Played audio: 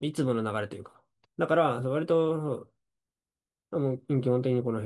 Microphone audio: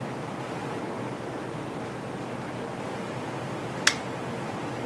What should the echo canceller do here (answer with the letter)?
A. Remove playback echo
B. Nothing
B